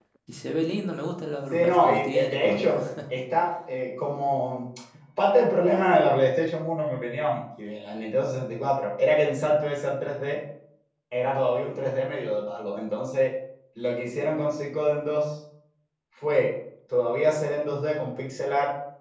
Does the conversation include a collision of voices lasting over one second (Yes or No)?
Yes